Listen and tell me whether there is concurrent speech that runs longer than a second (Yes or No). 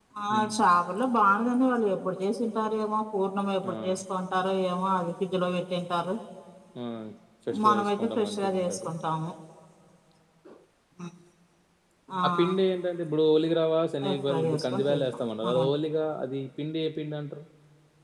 Yes